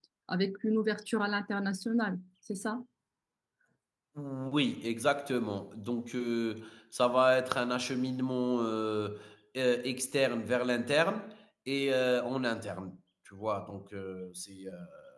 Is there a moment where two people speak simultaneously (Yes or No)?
No